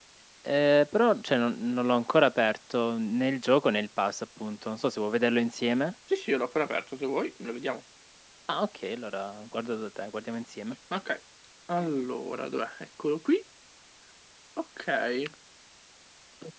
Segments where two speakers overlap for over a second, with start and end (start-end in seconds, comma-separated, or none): none